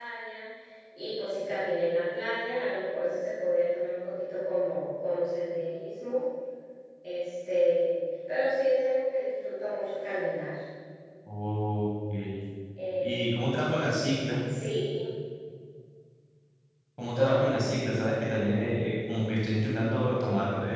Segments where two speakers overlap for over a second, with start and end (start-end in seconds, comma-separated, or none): none